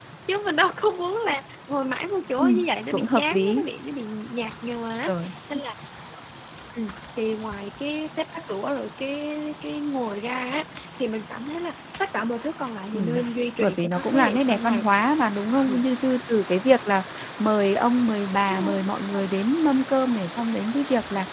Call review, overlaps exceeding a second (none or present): present